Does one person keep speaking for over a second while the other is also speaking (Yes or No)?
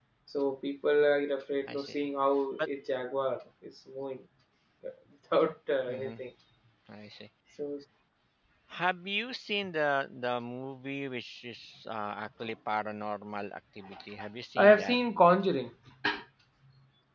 No